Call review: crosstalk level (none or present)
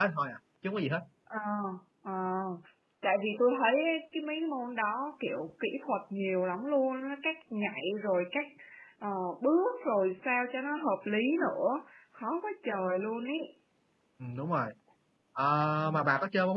none